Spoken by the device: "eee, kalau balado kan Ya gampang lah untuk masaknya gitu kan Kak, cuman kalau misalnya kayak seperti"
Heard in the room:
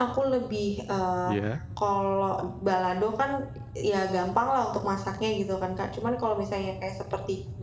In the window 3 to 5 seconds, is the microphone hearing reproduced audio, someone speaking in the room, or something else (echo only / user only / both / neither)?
echo only